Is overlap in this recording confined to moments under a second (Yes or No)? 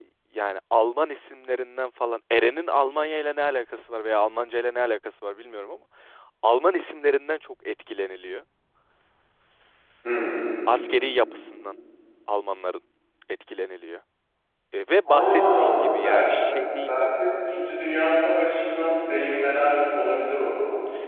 No